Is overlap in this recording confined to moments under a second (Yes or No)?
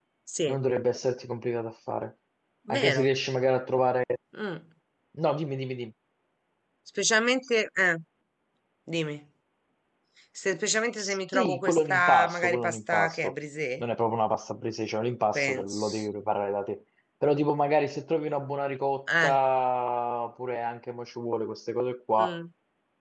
No